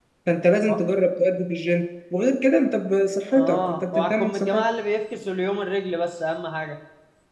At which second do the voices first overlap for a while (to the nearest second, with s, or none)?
3 s